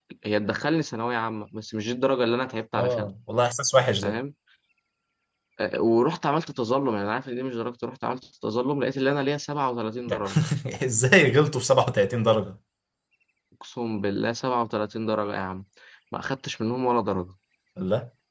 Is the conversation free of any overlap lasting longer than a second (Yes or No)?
Yes